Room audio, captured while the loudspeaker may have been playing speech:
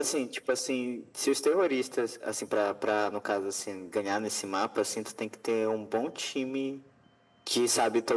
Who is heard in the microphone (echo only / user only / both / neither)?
echo only